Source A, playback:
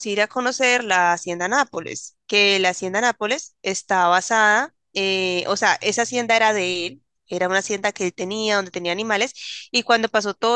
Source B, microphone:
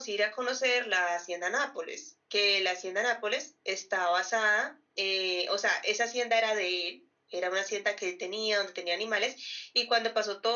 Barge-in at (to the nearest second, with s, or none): none